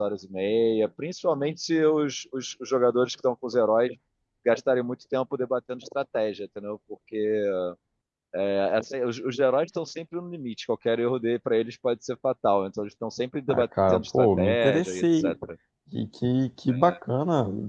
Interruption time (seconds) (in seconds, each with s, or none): 13.5 s